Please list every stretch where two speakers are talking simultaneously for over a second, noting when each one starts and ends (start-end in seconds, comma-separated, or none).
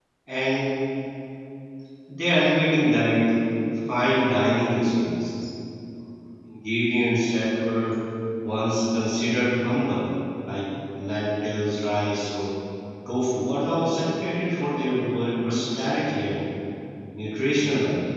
none